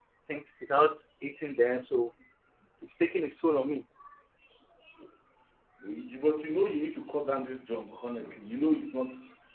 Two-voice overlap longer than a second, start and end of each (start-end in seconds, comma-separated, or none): none